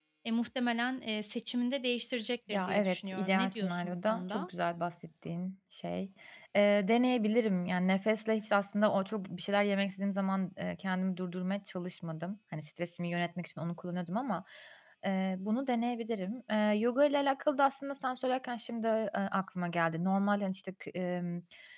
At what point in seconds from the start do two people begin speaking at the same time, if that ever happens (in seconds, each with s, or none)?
2.5 s